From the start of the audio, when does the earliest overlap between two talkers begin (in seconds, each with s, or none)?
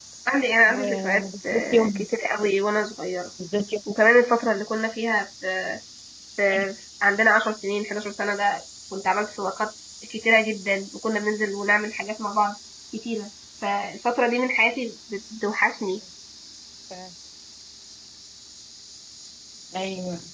0.7 s